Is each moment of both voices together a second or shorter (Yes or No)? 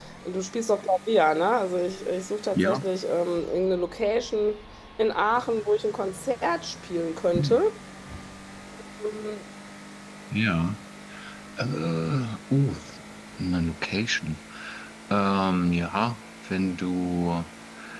Yes